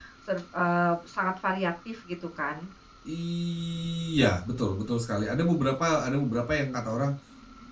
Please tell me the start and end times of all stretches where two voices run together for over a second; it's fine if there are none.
none

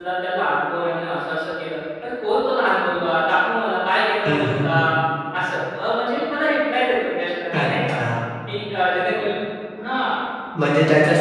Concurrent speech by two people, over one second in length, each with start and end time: none

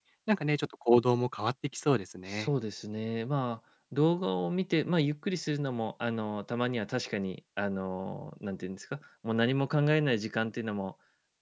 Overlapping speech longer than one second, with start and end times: none

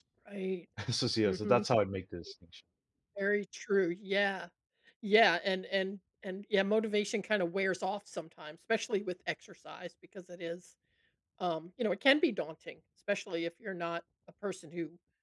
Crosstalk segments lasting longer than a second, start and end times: none

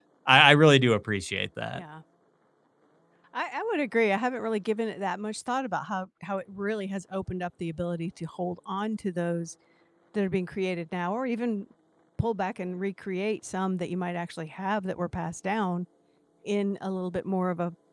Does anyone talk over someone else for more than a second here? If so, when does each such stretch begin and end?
none

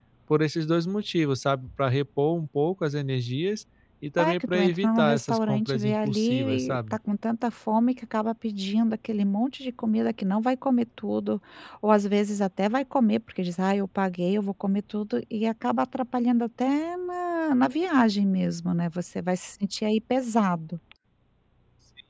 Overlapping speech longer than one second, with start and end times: 4.2-6.8

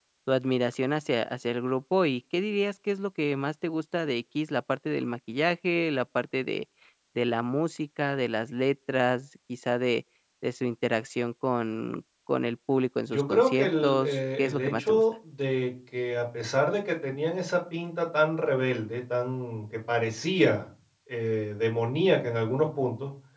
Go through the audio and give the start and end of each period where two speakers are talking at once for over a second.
13.1-15.0

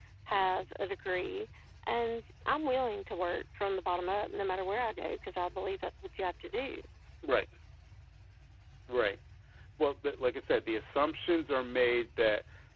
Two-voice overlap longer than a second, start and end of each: none

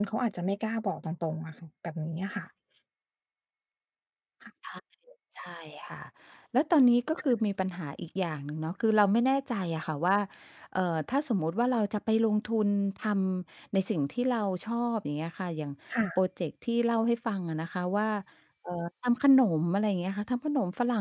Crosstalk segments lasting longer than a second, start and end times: none

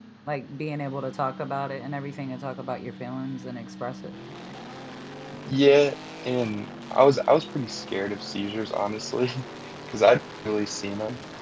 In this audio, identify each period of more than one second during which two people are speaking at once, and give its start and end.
none

